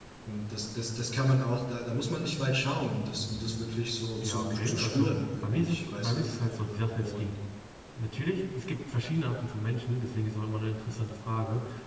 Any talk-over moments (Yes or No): Yes